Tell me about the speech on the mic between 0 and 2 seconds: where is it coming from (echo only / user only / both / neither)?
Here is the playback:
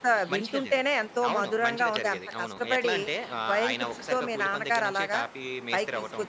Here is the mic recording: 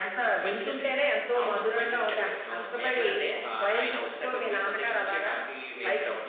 echo only